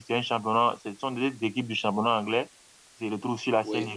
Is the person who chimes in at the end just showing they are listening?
Yes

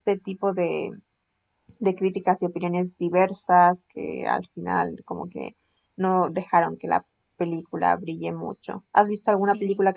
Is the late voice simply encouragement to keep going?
Yes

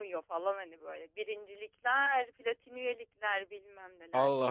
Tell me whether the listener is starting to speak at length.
No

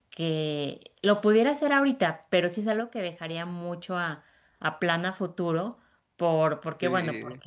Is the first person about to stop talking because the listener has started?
No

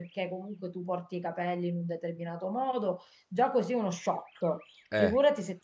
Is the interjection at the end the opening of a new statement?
No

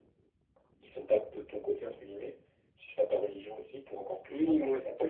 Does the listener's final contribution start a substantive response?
Yes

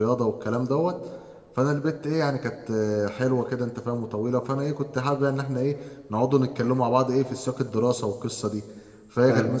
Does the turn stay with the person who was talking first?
Yes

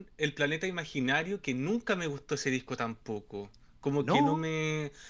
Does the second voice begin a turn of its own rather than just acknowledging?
No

